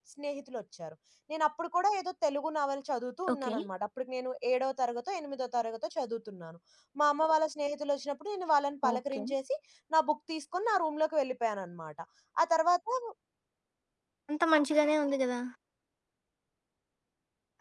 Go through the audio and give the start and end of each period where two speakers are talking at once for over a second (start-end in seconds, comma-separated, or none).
none